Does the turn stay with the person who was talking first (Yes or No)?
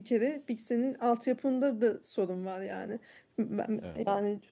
Yes